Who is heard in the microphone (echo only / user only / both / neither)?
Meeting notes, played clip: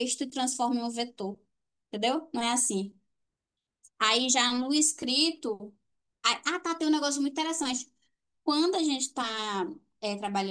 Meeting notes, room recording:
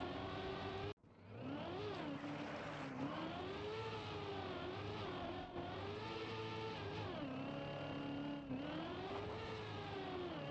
neither